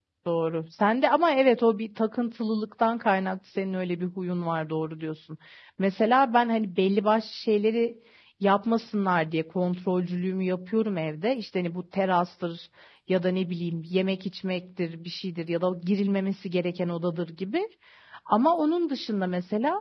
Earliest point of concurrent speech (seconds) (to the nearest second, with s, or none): none